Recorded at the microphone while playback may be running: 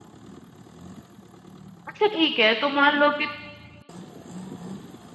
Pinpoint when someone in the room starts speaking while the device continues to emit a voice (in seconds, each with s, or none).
1.9 s